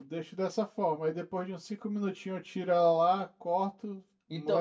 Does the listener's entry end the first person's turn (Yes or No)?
Yes